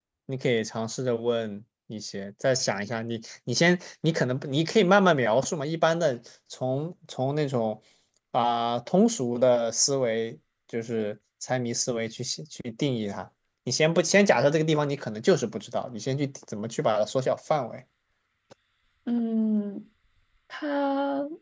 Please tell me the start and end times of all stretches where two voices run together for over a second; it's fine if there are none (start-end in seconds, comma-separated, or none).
none